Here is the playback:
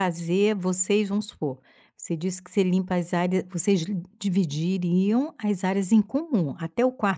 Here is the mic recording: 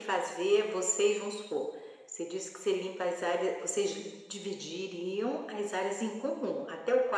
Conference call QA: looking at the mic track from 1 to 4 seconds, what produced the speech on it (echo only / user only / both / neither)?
echo only